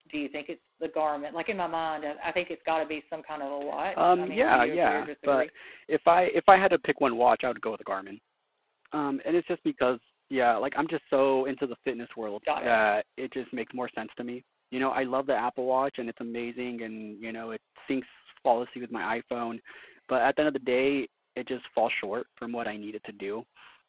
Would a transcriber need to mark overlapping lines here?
Yes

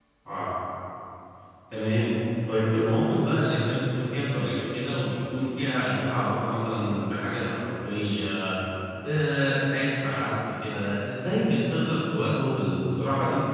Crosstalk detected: No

